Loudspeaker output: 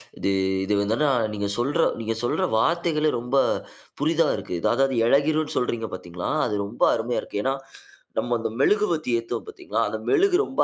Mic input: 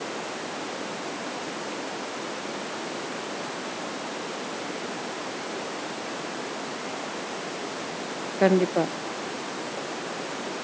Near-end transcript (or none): கண்டிப்பா.